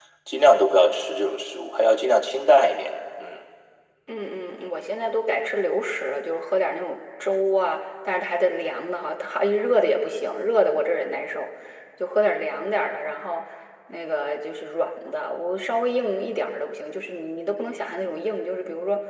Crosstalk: none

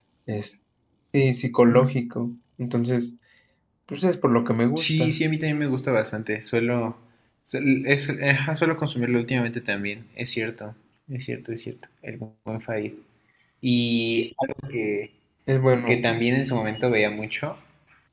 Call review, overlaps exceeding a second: none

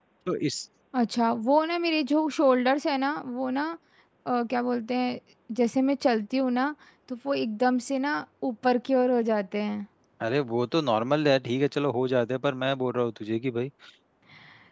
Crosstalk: none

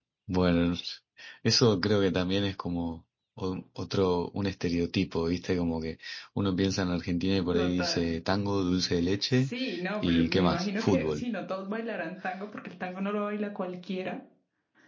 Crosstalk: present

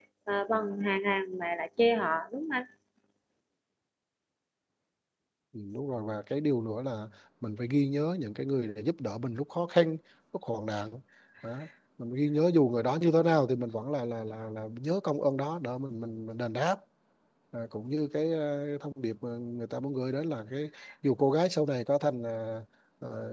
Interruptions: none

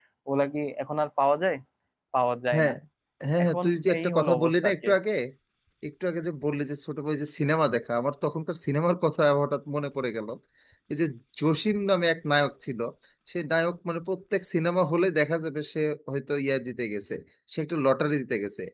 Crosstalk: present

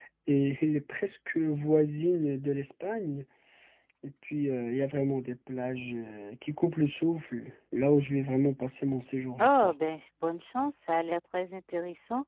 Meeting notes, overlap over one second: none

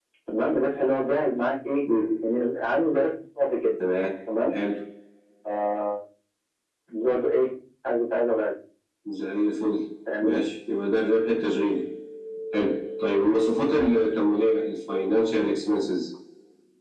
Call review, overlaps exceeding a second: none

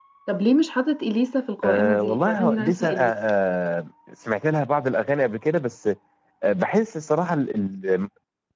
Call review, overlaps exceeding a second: present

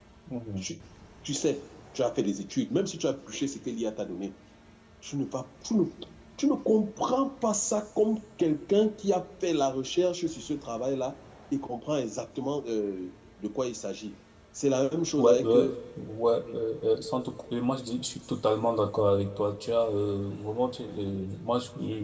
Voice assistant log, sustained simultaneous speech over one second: none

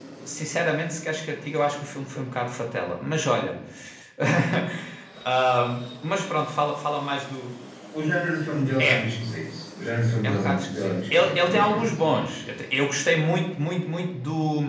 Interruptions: present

